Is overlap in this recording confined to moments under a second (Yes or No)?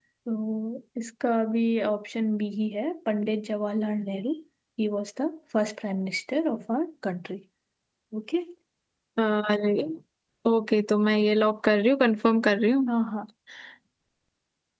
Yes